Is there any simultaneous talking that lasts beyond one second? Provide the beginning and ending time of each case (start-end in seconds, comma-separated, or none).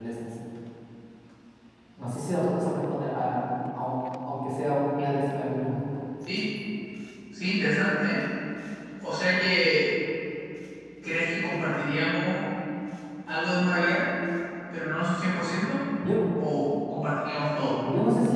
none